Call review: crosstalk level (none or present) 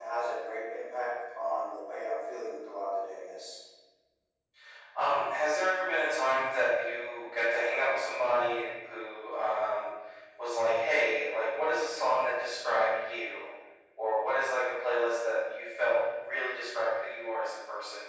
none